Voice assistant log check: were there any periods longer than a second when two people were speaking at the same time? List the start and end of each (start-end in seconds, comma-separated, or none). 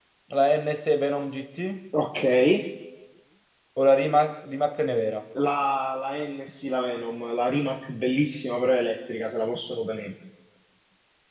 none